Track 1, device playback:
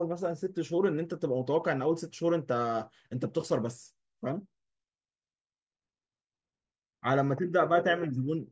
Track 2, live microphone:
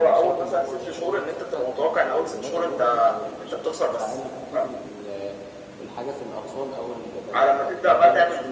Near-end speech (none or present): present